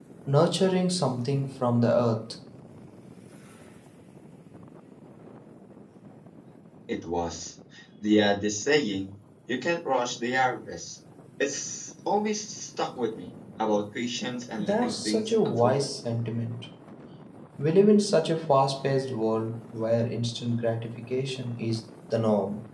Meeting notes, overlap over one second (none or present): present